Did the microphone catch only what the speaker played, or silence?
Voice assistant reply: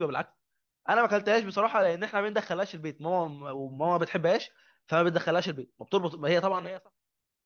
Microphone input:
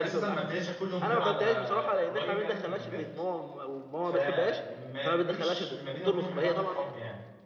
No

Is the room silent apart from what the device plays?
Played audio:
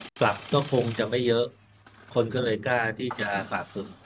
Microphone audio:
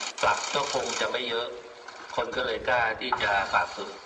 Yes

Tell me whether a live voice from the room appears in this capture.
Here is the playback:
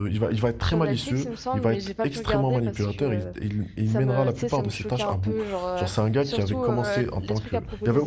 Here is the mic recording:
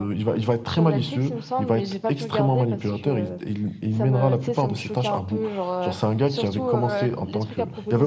No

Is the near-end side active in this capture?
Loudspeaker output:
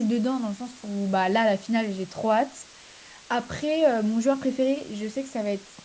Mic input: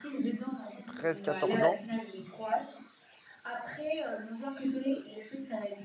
Yes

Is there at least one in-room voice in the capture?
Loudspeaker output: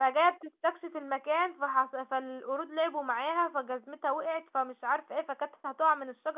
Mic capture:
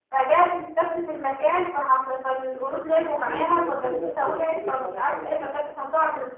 Yes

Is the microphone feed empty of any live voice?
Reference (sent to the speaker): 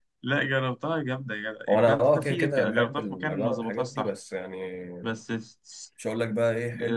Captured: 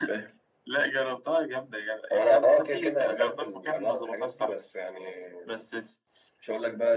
Yes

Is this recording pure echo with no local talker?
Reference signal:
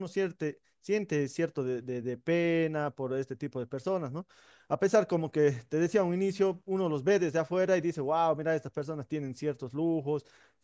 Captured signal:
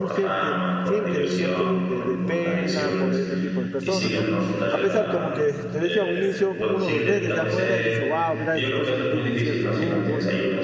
No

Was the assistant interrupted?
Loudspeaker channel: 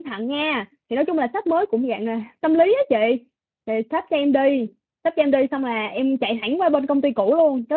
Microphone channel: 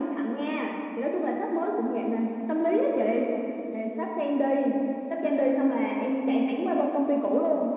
No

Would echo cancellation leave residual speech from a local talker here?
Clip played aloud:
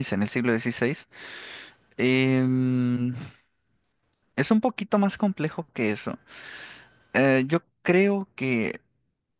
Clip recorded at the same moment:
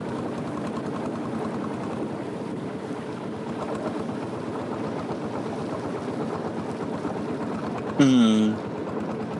Yes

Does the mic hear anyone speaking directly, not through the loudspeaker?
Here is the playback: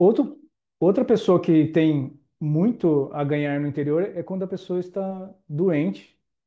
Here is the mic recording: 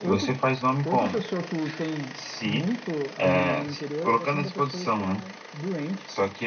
Yes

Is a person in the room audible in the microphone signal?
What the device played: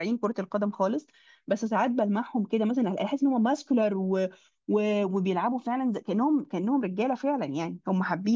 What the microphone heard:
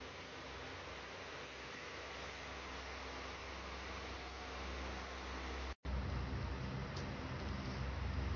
No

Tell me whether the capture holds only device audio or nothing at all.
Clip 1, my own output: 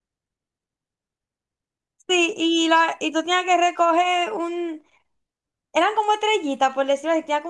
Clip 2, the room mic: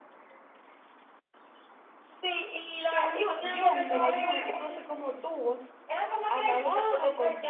No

